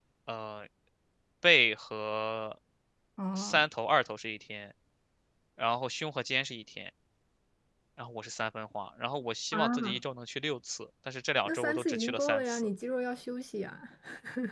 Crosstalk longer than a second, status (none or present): present